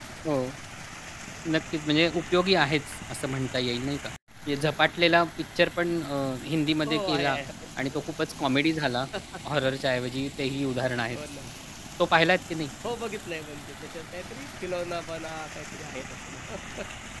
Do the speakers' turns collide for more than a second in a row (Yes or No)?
No